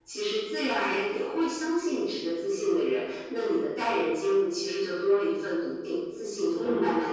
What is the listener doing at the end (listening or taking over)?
taking over